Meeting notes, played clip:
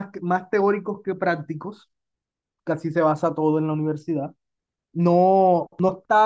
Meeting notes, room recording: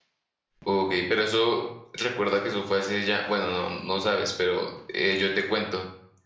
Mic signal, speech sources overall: user only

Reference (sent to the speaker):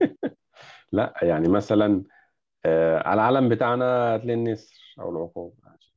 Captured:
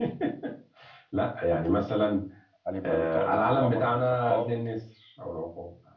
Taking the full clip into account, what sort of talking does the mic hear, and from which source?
both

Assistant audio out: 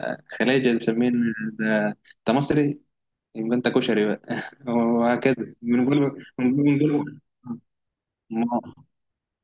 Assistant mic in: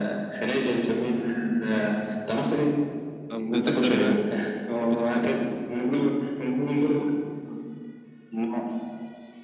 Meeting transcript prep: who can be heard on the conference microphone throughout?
both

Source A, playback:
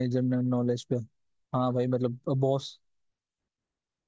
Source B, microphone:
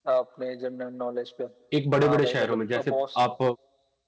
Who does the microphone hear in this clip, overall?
both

